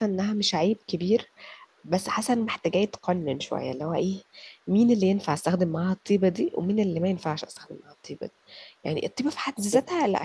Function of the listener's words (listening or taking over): listening